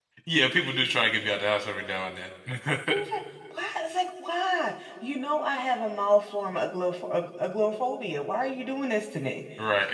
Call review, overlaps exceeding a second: none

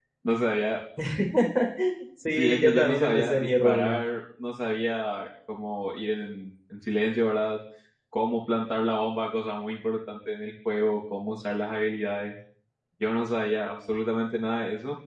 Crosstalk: present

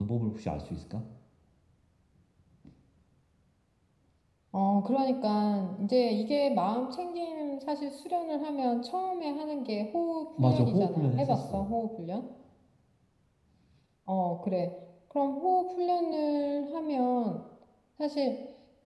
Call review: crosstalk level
present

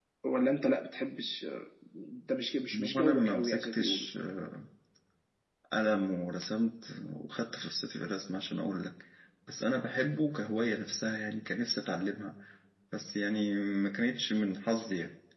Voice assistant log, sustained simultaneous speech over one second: present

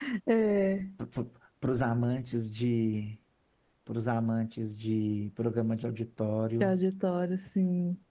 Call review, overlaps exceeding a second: none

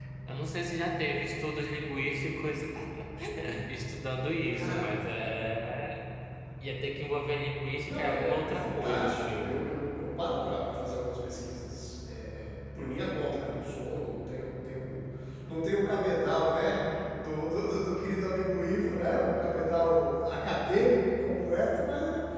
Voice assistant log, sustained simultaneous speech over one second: present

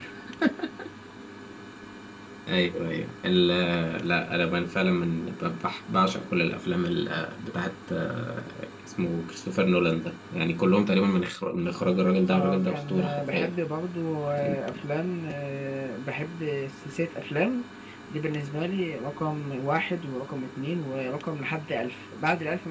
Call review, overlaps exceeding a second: present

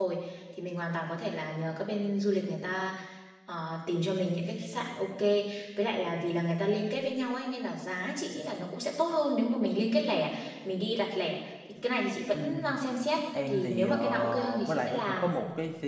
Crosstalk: present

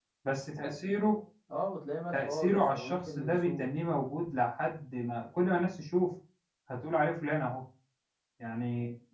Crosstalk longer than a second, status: present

